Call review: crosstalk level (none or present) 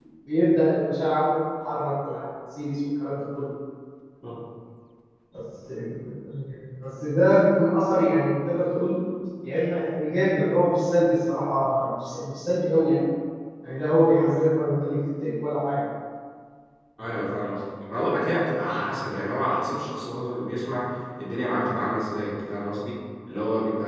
none